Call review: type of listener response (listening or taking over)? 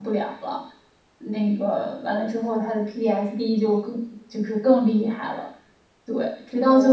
listening